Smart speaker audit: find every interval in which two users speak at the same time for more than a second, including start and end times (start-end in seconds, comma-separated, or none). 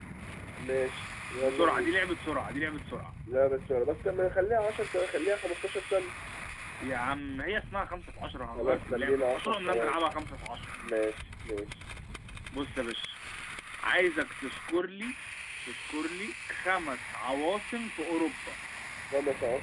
8.6-10.0